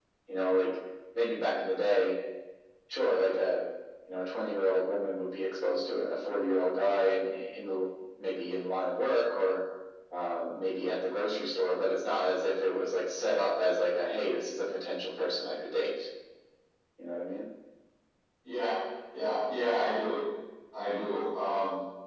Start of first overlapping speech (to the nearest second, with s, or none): none